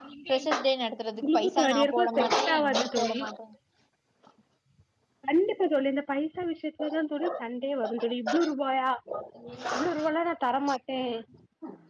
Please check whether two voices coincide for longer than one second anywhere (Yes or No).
Yes